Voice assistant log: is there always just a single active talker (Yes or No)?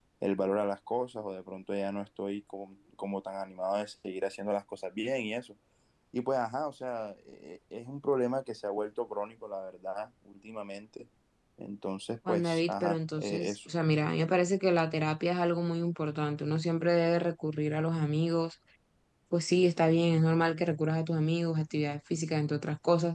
No